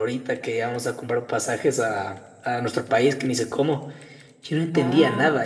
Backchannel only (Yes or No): Yes